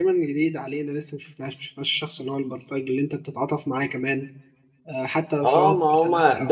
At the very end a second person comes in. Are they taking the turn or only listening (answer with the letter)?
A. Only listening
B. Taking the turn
B